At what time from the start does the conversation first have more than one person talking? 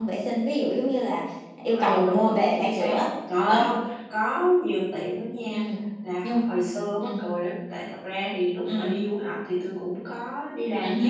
2 s

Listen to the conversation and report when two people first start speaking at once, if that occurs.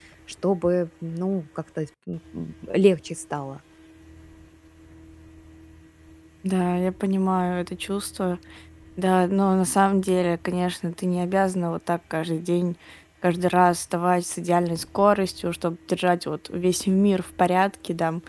none

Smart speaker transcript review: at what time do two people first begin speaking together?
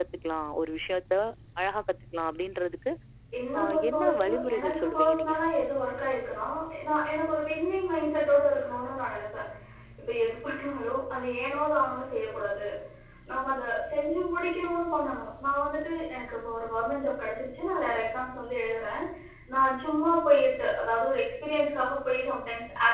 4 s

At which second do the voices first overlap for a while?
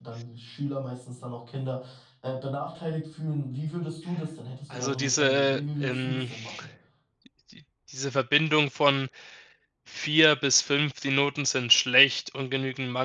5 s

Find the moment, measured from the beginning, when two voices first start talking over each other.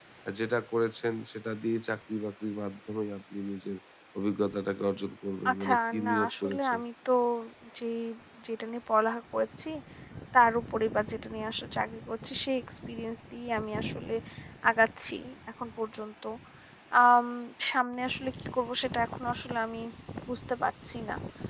5 s

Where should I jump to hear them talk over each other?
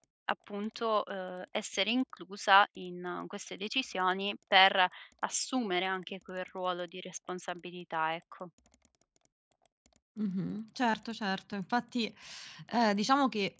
none

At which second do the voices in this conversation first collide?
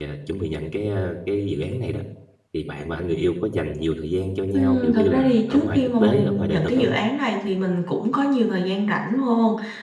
5 s

